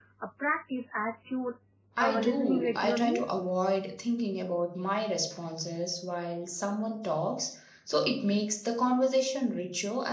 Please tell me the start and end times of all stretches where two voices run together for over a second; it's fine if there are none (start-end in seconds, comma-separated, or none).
2.0-3.2